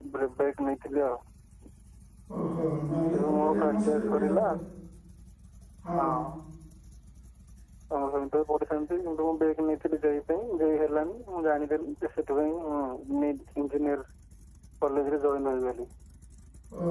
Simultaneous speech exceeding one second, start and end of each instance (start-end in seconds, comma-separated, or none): 3.1-4.4